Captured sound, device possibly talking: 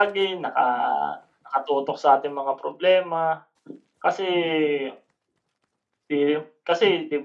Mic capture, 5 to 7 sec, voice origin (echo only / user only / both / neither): echo only